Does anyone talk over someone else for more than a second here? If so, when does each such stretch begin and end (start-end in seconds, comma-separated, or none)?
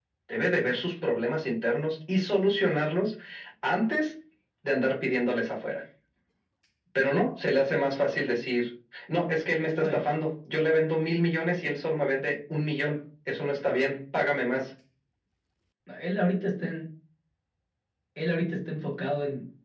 none